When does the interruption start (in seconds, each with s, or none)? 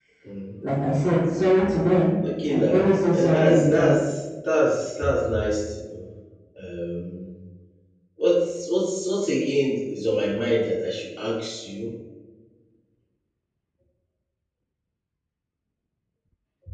2.4 s